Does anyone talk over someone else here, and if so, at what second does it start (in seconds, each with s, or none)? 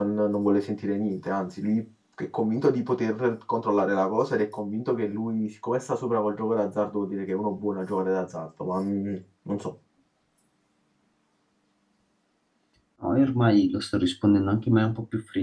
none